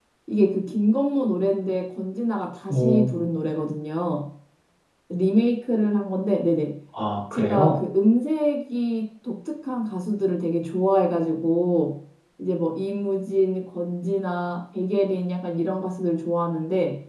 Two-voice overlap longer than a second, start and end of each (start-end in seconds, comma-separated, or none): none